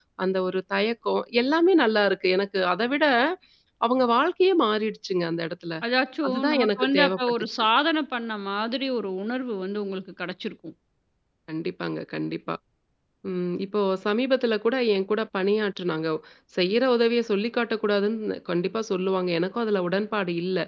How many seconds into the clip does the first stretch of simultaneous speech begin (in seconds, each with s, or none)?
6.3 s